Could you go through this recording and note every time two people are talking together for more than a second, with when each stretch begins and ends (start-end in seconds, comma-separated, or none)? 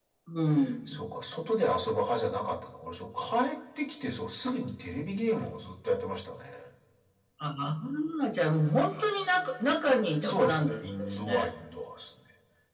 10.2-11.5